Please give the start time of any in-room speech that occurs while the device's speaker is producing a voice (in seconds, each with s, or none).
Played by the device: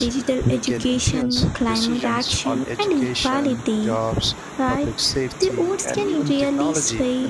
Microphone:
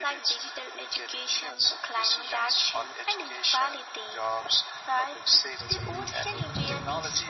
5.6 s